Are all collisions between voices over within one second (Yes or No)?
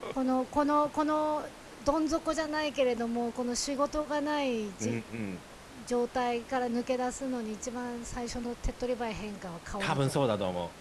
Yes